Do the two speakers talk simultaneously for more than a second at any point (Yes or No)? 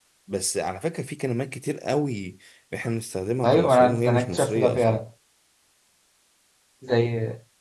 Yes